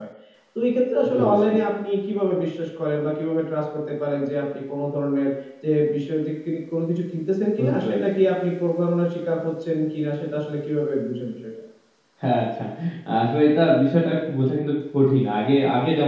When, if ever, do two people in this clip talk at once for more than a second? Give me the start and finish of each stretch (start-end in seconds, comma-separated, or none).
none